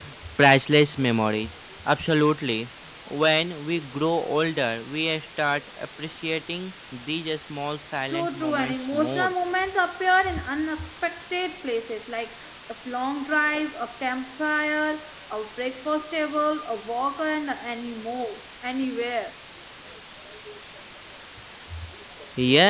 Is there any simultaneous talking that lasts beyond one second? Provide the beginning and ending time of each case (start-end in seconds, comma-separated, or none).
8.1-9.3